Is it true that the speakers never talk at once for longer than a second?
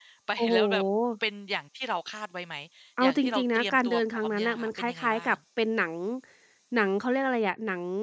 No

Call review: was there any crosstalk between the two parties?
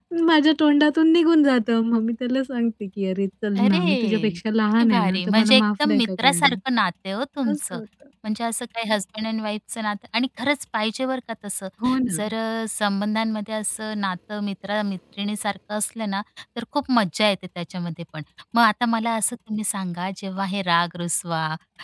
Yes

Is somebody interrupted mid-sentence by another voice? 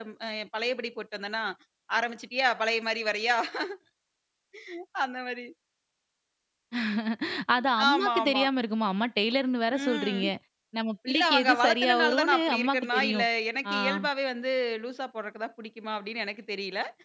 Yes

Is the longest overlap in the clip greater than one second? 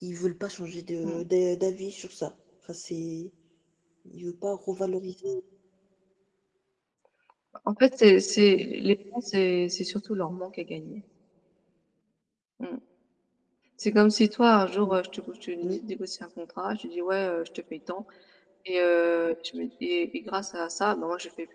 No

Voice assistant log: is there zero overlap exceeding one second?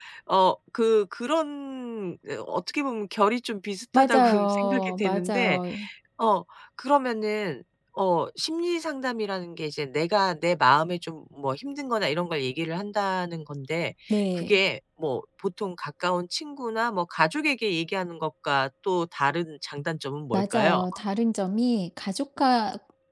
No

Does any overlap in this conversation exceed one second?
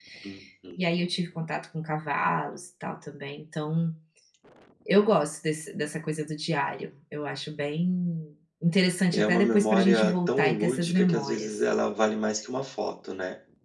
Yes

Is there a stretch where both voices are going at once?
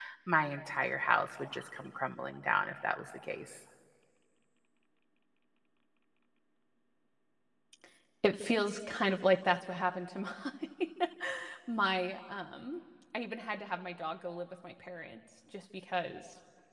No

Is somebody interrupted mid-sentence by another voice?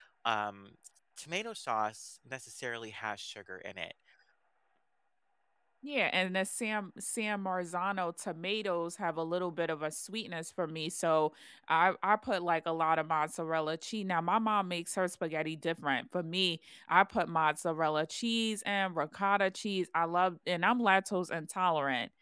No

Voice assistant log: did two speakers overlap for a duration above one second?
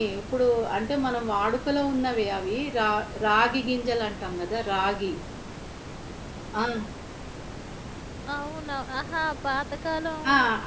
No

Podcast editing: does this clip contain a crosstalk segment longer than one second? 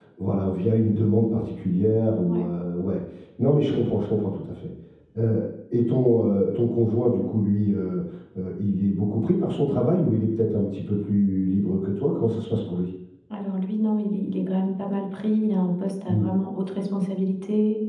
No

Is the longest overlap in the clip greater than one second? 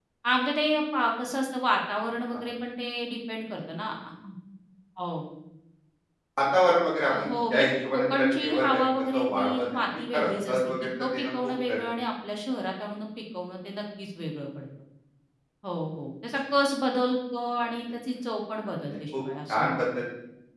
Yes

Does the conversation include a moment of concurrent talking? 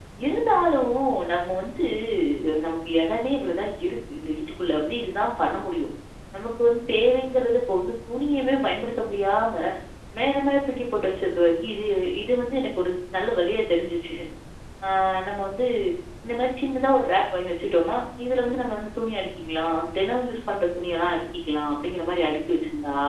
No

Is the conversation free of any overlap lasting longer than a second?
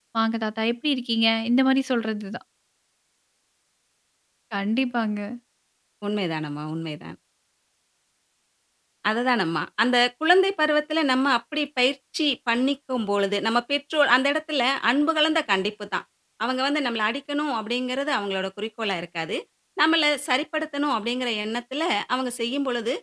Yes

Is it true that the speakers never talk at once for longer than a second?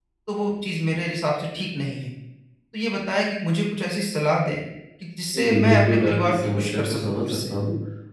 No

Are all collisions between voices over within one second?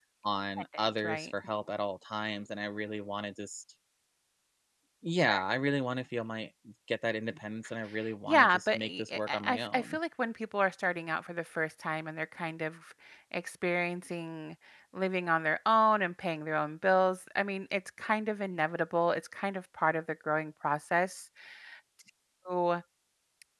No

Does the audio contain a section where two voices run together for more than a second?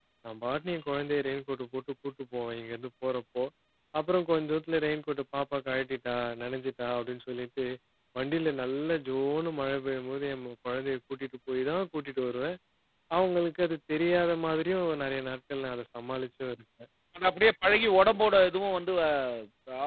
No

